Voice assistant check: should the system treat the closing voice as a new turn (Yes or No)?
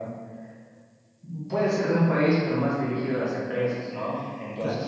No